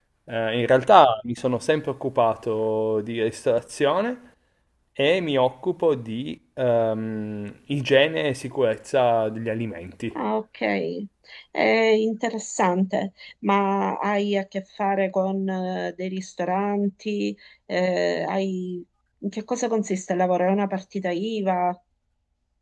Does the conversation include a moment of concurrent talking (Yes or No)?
No